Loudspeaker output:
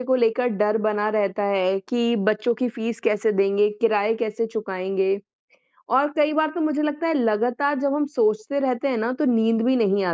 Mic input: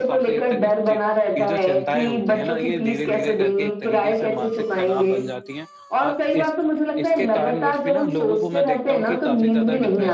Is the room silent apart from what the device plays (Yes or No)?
No